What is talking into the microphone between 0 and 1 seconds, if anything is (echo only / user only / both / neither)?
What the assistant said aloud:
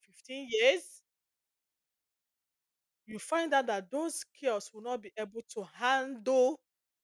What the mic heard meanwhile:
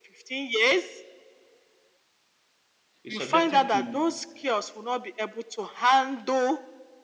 echo only